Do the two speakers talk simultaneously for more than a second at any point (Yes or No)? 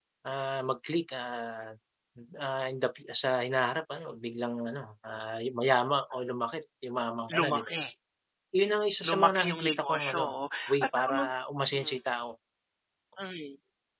Yes